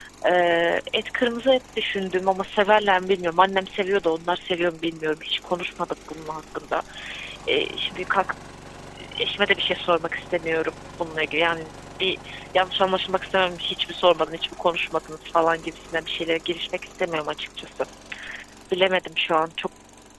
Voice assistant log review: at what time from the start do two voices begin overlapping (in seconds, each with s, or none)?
none